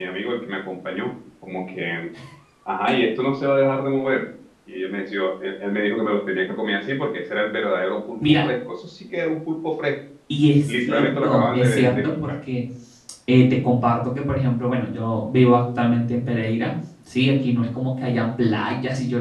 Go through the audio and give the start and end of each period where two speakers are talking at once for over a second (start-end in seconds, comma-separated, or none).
10.6-12.3